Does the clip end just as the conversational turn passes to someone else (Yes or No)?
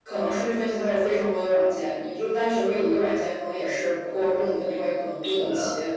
No